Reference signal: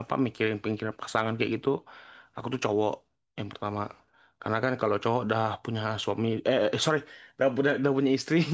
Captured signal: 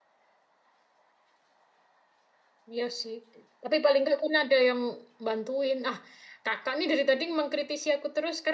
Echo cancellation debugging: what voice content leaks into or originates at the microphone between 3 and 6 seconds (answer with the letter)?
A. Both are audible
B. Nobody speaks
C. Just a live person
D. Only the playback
C